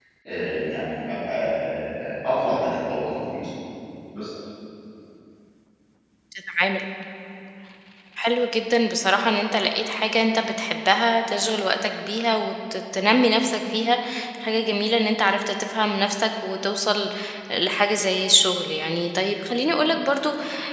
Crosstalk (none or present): none